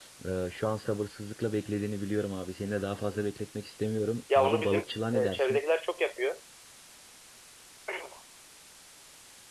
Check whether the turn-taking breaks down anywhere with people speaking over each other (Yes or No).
Yes